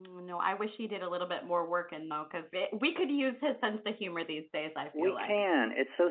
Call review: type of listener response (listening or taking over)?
taking over